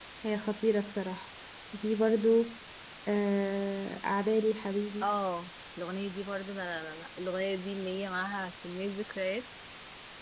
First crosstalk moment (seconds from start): none

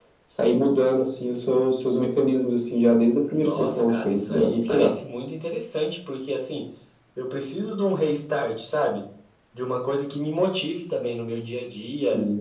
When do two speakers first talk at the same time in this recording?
3.3 s

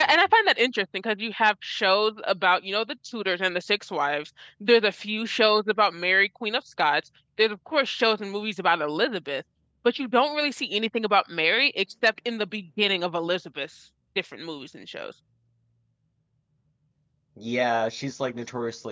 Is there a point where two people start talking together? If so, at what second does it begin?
none

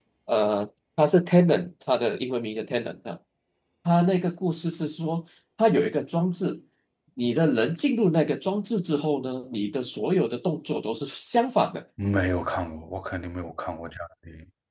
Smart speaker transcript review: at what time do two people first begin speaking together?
none

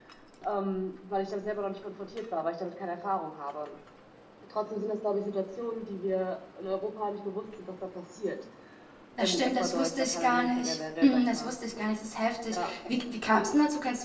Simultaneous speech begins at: 9.2 s

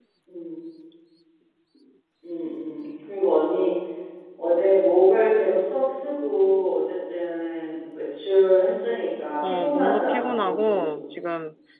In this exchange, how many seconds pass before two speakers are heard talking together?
9.4 s

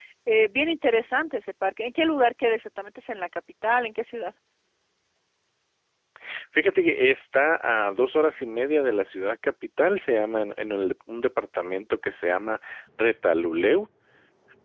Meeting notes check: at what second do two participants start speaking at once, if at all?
none

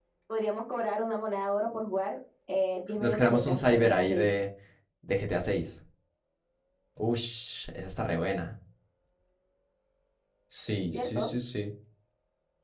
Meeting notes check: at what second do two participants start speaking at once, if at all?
3.0 s

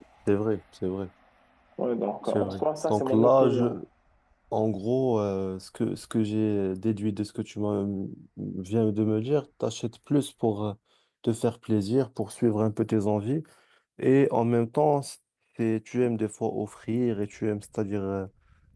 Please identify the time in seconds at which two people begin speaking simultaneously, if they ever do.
2.3 s

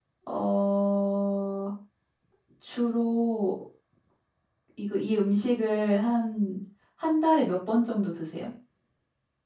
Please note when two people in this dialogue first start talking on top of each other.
none

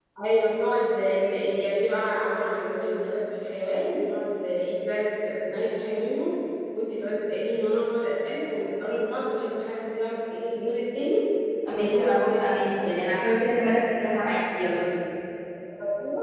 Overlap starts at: 11.7 s

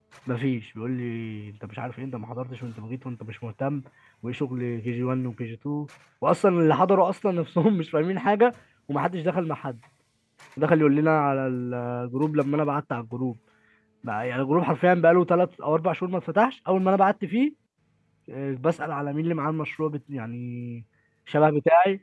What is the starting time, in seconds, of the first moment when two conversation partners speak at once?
none

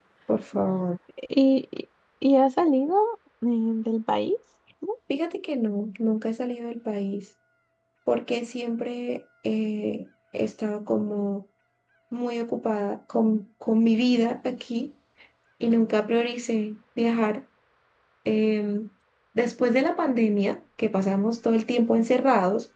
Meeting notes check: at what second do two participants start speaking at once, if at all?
none

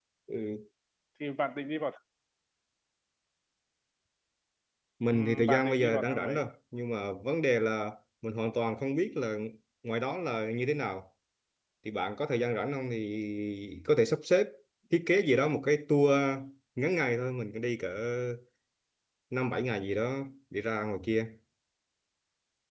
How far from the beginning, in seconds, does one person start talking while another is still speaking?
5.1 s

